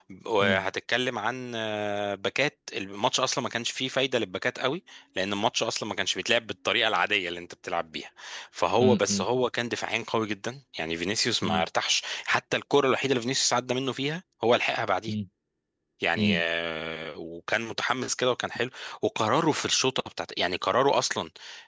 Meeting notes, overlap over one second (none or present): none